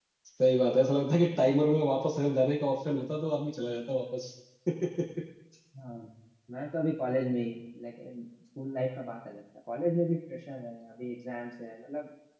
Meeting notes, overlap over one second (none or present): none